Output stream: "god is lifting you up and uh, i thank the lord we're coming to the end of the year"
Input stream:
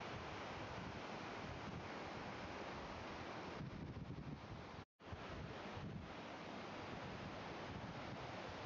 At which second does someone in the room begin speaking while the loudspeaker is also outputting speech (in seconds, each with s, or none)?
none